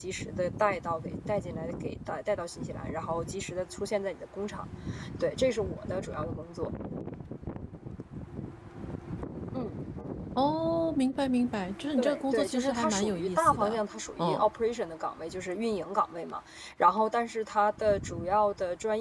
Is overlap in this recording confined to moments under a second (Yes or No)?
No